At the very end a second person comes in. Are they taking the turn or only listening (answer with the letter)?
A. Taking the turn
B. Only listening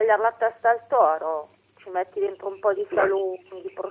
B